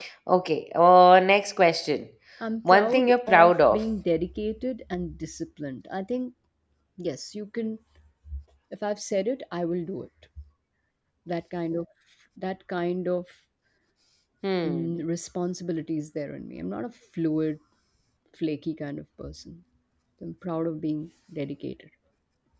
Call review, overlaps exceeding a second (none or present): present